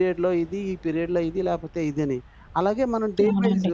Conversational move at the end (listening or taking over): listening